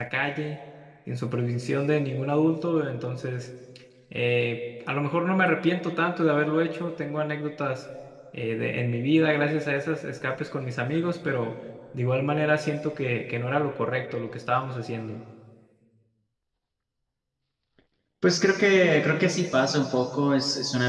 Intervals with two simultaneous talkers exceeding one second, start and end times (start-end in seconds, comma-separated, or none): none